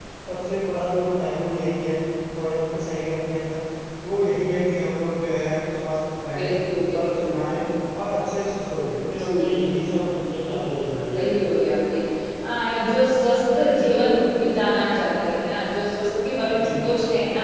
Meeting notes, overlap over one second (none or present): none